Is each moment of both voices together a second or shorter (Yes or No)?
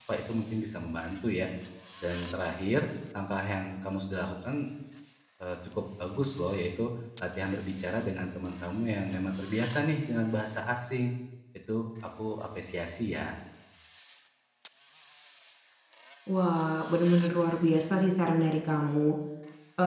Yes